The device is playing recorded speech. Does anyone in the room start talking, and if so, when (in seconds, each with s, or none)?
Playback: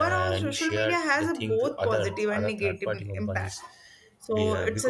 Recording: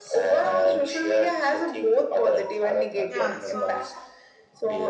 3.0 s